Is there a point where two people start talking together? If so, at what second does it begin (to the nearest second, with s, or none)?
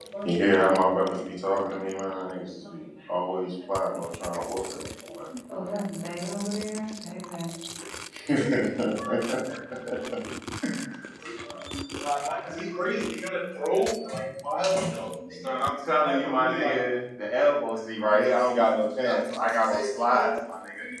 none